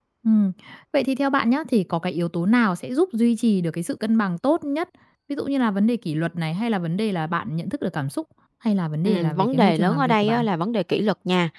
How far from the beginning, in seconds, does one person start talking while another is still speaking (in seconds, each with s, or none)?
9.1 s